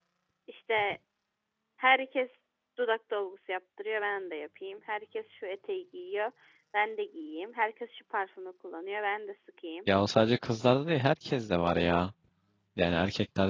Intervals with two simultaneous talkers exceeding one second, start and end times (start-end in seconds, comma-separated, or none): none